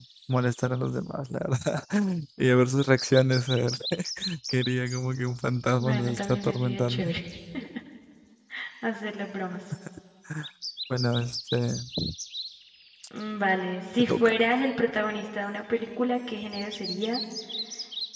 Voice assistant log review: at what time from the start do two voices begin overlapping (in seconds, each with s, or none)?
5.8 s